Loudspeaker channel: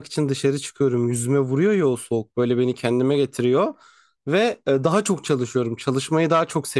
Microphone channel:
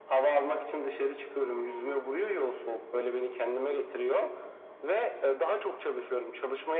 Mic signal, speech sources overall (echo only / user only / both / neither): echo only